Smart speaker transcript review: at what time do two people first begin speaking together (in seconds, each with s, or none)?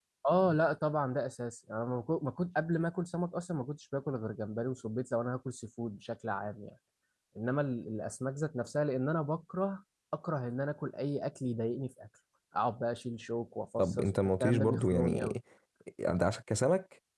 13.8 s